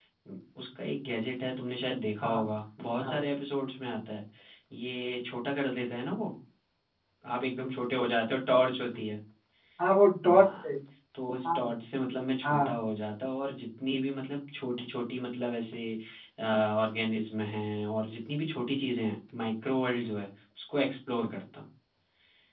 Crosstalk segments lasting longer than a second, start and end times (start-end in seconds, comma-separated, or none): none